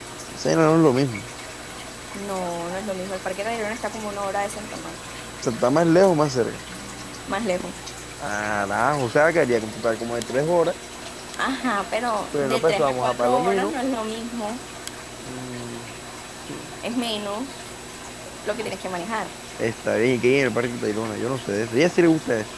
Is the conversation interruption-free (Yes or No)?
No